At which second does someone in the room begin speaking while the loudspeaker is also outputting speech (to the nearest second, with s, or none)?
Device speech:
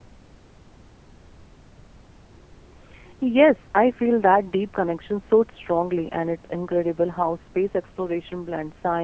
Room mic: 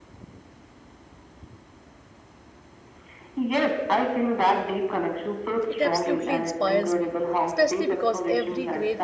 6 s